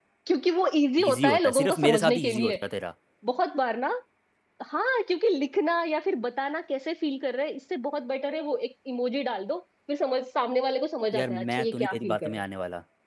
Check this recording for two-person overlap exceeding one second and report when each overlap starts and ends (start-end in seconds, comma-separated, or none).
1.0-2.6, 11.1-12.4